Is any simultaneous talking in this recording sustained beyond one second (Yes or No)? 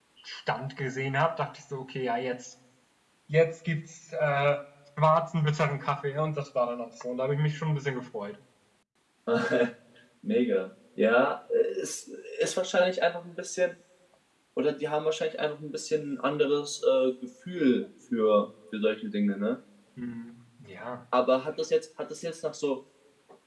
No